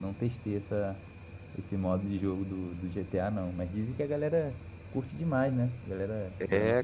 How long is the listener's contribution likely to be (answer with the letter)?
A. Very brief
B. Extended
B